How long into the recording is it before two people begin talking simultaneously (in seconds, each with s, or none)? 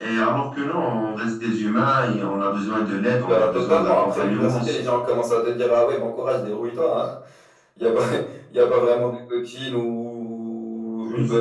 3.2 s